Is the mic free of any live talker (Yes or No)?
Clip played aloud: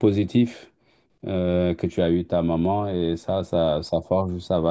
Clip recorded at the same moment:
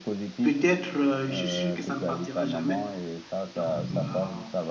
No